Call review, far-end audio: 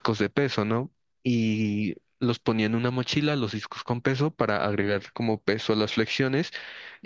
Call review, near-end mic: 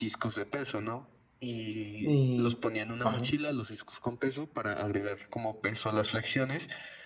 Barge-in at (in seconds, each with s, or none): 2.0 s